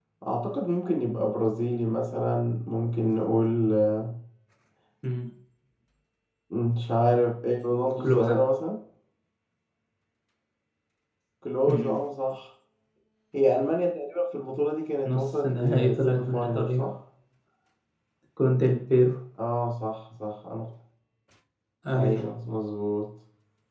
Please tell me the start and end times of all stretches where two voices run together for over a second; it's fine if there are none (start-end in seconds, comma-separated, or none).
15.1-16.9